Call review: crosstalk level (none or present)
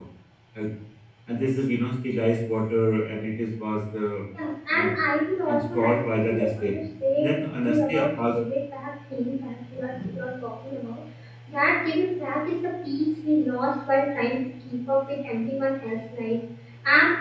present